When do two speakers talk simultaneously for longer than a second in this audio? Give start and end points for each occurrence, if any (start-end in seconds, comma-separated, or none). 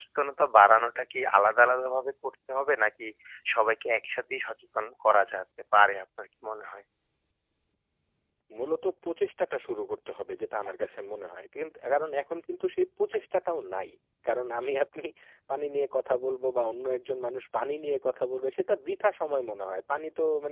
none